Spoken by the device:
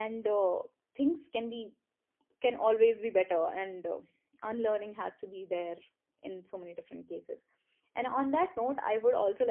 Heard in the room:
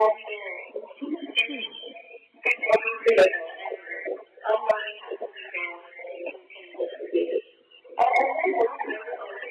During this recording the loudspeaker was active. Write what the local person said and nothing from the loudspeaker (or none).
Hmm.